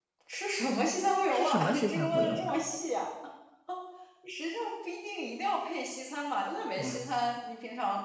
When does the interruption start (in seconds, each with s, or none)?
1.3 s